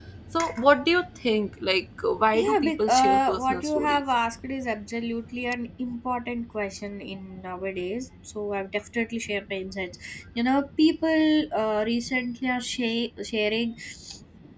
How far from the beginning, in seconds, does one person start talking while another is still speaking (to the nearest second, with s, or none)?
2 s